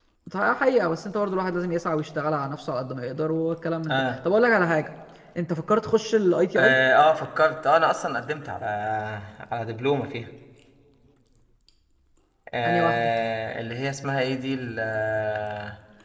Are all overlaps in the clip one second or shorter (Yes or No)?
Yes